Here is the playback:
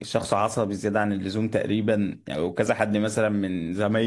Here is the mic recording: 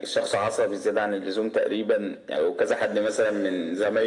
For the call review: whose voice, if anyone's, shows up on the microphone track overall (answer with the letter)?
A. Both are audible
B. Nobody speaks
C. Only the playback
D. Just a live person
C